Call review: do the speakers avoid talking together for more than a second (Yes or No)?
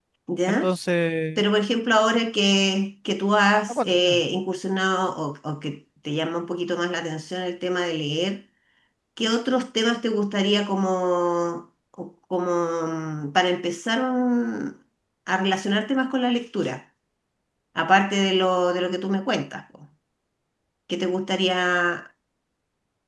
Yes